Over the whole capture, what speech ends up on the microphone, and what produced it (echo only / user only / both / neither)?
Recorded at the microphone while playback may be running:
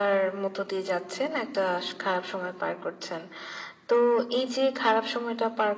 echo only